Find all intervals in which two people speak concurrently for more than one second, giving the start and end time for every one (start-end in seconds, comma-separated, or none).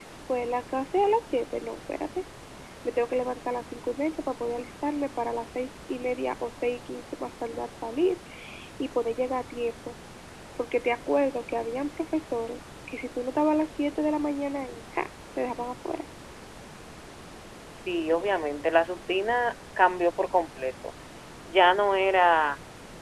none